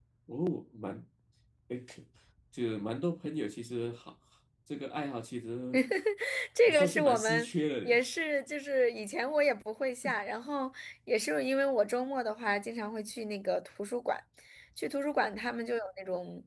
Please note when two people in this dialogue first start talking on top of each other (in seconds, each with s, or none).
6.7 s